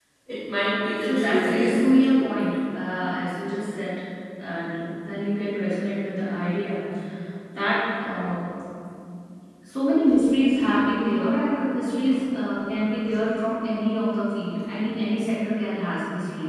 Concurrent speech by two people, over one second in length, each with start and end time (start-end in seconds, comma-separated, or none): 1.0-2.2